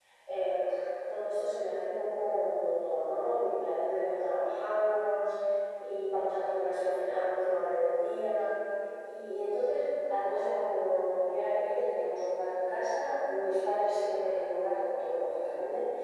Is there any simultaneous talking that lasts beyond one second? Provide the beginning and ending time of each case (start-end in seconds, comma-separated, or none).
none